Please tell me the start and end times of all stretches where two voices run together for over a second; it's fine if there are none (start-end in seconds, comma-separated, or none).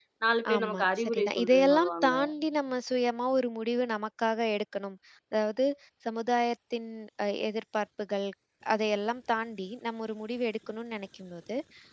0.5-2.1